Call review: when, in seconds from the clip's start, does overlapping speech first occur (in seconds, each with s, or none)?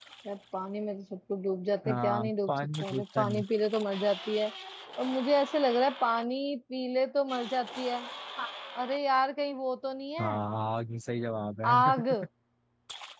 1.8 s